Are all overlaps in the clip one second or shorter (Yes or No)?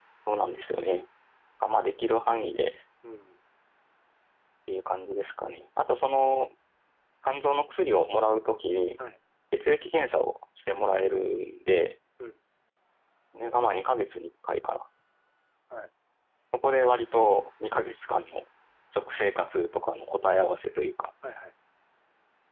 Yes